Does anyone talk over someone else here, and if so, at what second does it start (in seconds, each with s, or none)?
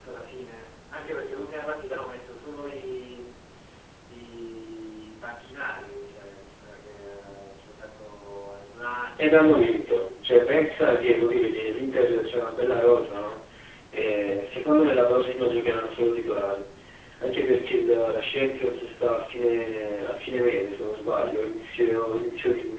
9.2 s